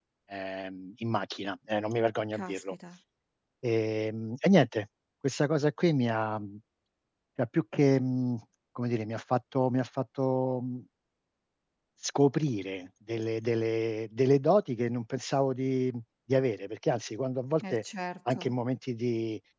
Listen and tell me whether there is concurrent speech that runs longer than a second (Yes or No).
No